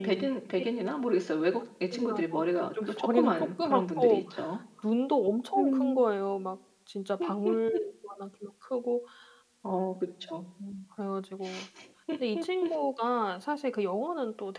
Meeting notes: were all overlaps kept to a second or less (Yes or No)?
No